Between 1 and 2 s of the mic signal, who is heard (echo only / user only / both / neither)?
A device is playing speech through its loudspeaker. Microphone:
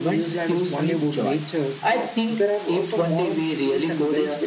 both